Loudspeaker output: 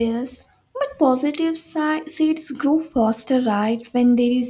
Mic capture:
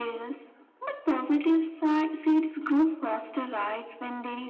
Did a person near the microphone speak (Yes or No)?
No